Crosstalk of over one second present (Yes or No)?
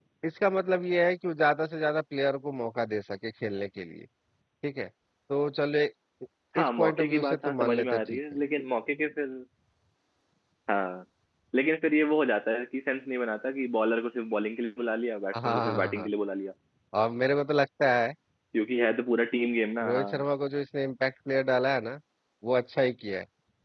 Yes